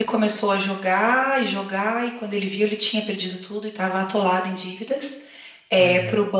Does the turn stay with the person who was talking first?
Yes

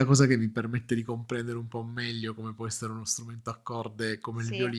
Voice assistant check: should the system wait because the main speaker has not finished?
Yes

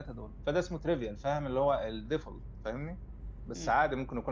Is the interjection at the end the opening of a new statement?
No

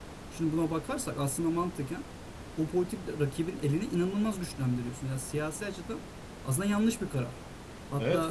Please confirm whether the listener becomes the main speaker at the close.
Yes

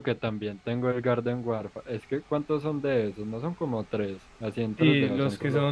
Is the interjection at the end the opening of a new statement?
Yes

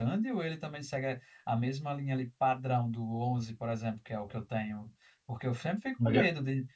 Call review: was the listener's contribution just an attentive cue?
Yes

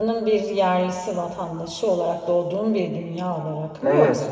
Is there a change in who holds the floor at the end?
Yes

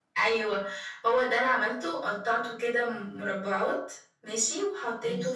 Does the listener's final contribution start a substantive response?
No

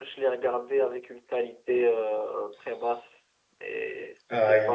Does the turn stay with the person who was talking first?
No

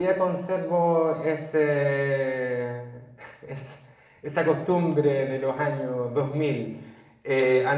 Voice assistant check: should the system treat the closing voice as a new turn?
No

